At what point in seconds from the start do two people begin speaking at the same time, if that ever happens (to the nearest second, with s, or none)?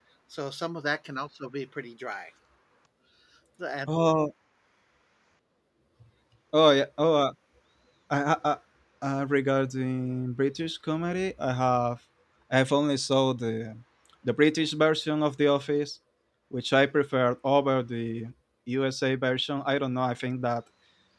none